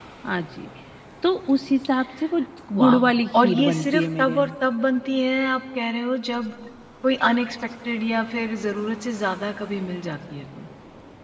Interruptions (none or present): present